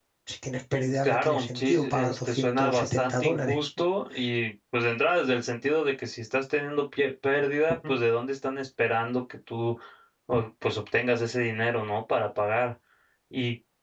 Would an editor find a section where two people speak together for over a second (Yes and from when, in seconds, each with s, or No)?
Yes, from 1.0 s